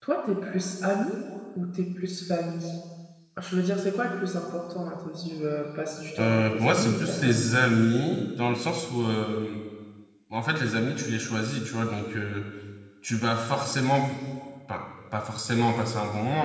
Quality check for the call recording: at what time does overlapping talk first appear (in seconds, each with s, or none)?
6.2 s